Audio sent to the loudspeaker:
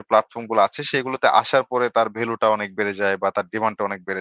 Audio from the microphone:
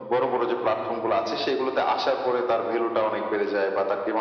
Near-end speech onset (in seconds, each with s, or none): none